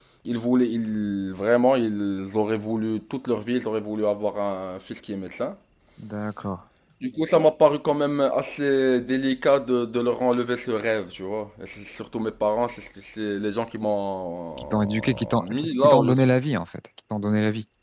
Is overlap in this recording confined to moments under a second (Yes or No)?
No